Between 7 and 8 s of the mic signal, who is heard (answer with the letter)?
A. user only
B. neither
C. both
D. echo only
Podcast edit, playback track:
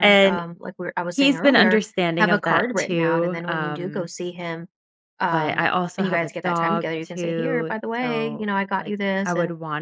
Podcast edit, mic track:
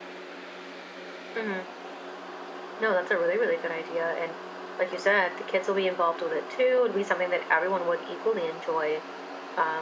A